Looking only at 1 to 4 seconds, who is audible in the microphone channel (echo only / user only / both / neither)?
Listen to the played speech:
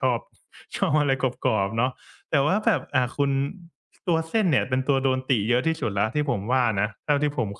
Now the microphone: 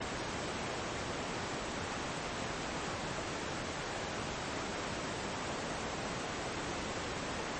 neither